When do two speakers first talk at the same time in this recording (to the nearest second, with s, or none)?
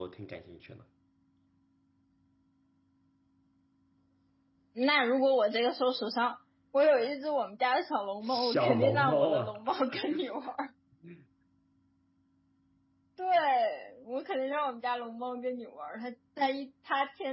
8 s